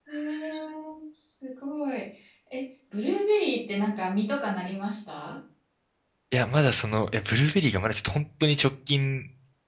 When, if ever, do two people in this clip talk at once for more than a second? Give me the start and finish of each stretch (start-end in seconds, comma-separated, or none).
none